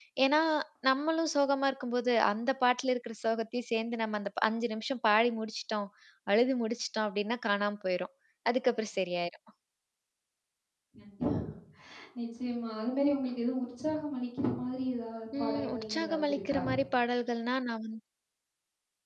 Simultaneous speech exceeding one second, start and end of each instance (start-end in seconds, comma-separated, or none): 15.4-16.6